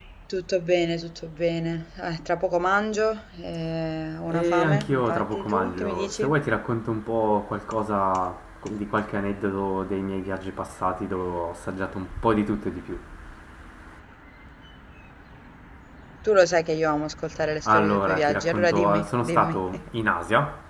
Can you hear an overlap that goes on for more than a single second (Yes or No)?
Yes